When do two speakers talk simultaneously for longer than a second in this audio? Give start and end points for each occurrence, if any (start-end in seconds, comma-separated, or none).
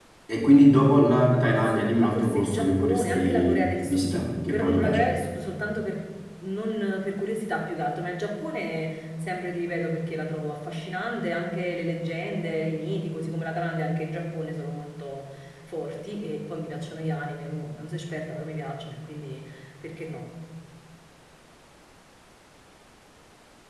1.4-5.0